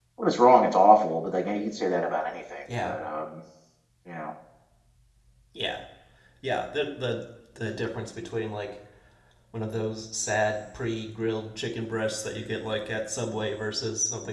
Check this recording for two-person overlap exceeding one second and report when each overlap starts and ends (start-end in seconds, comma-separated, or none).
none